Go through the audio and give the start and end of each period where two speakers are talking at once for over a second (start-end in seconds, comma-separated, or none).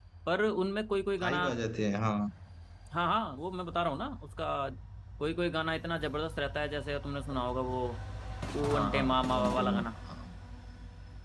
8.6-9.8